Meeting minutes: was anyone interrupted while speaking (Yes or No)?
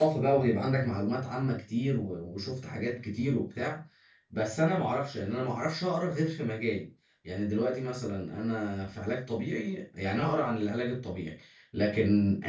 No